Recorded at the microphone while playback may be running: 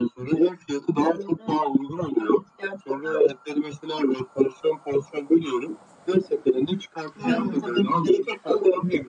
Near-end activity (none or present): present